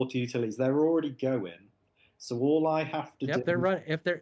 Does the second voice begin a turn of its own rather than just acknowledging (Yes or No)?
Yes